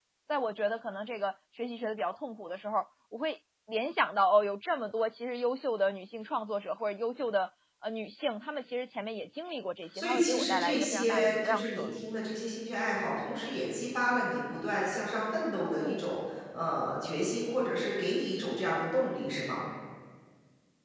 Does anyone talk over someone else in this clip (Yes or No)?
Yes